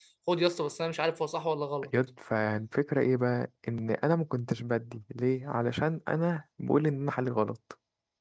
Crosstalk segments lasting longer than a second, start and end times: none

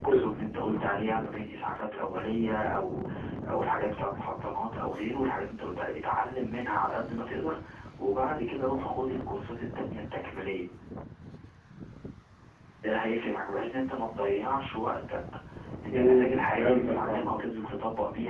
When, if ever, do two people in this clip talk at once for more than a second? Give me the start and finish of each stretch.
15.9-17.2

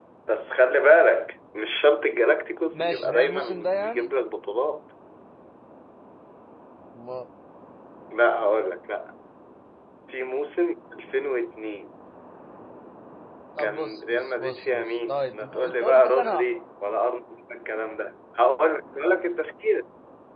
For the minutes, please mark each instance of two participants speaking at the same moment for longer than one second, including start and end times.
2.7-4.1, 13.6-16.6

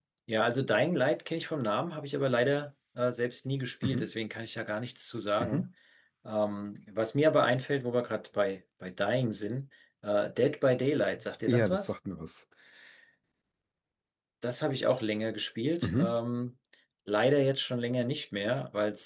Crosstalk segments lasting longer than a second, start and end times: none

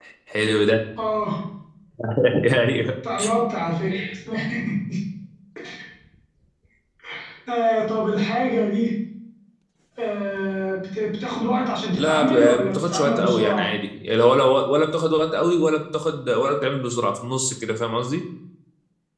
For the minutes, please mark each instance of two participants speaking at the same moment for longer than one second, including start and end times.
11.9-13.7

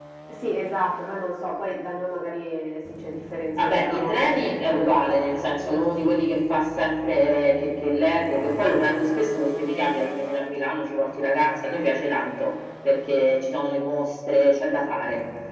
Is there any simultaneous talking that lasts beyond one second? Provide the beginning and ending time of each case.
3.6-6.2

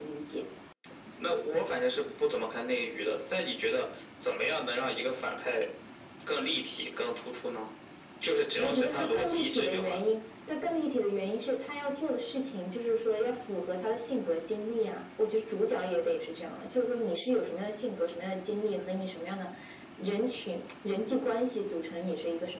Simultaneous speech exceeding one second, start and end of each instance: 8.6-10.0

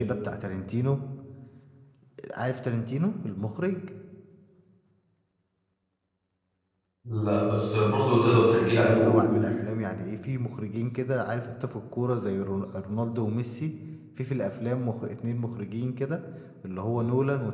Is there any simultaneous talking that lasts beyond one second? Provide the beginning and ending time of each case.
8.1-9.4

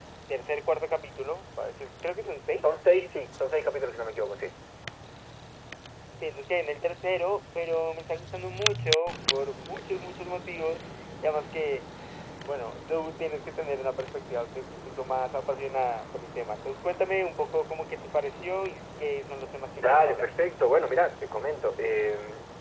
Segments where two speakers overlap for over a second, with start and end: none

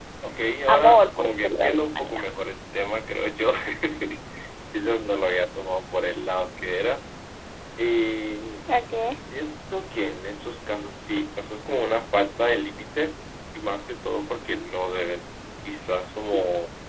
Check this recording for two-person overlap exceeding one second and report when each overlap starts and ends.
0.7-2.1

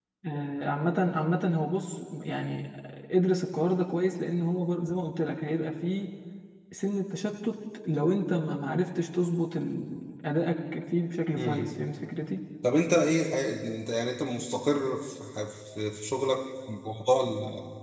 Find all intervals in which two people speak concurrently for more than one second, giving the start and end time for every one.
none

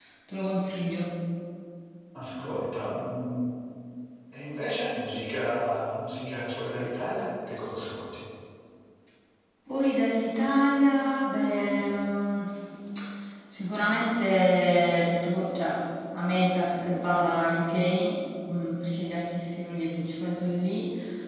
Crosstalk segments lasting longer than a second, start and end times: none

